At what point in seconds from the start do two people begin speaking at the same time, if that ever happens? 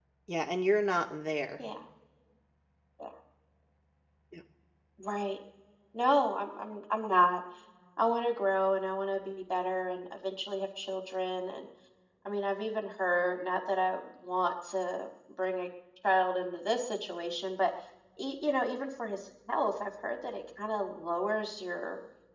none

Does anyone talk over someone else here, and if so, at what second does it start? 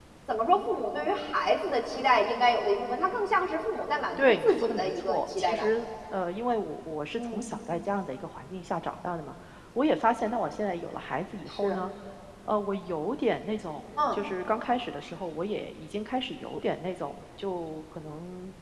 4 s

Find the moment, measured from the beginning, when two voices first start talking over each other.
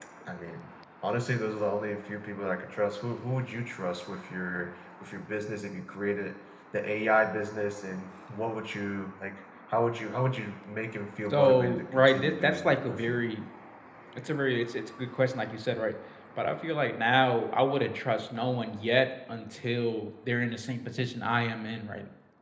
11 s

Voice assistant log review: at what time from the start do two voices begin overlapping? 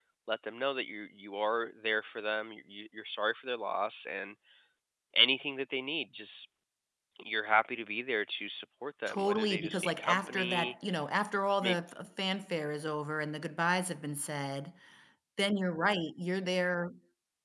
9 s

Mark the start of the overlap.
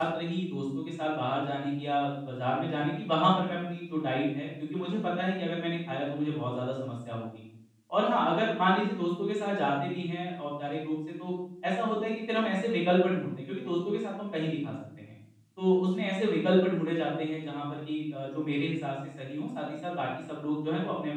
none

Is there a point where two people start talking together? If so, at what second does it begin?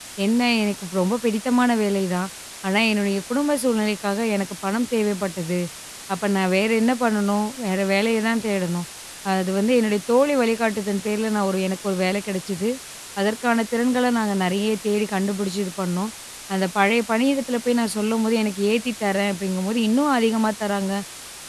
none

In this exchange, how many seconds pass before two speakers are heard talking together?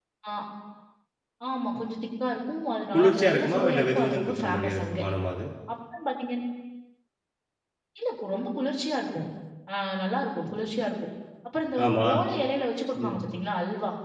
3 s

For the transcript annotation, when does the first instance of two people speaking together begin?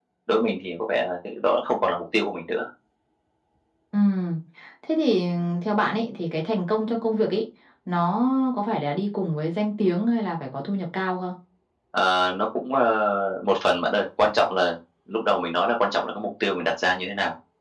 none

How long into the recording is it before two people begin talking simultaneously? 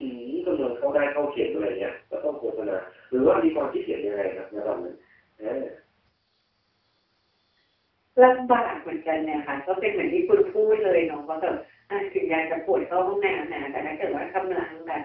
none

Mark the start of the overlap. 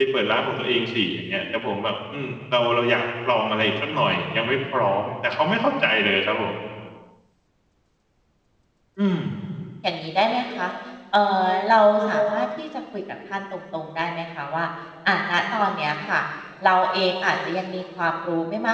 none

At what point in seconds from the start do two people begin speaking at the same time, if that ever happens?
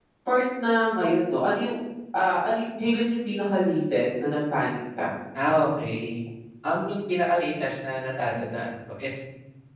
none

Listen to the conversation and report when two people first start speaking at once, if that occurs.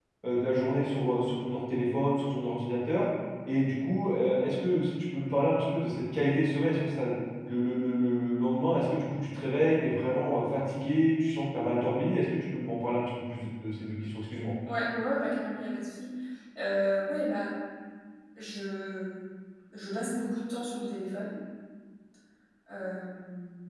none

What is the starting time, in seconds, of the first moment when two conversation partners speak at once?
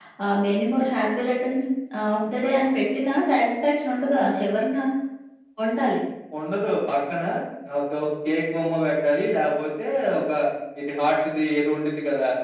none

